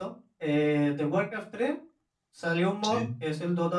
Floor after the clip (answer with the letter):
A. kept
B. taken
A